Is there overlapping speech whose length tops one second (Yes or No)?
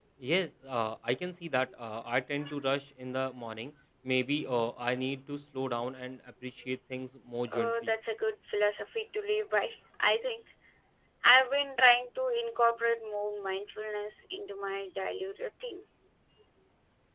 No